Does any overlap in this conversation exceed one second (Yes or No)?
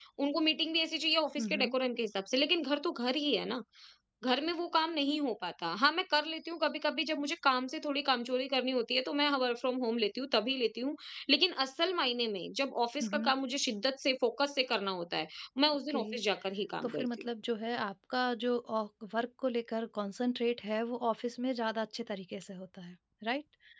No